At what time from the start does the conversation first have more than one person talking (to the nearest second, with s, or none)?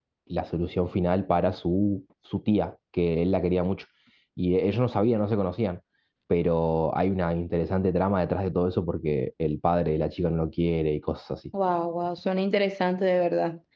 none